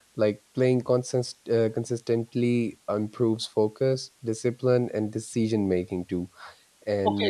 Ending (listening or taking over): taking over